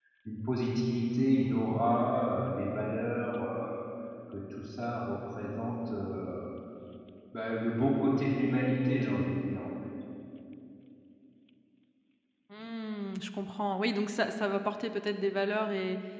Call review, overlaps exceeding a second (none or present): none